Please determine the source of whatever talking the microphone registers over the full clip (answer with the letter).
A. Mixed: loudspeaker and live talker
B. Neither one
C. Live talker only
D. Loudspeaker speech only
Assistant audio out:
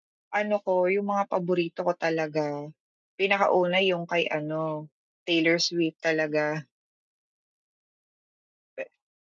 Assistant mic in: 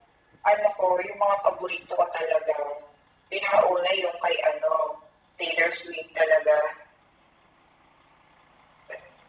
D